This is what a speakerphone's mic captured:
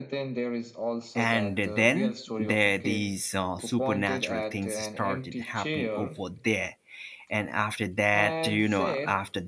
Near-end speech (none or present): present